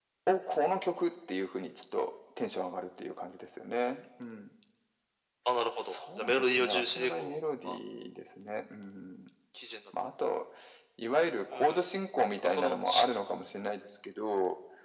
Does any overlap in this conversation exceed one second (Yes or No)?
Yes